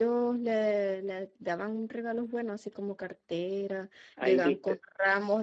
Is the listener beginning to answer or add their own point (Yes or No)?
No